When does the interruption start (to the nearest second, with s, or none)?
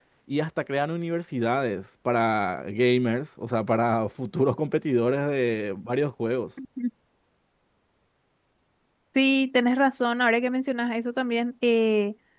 none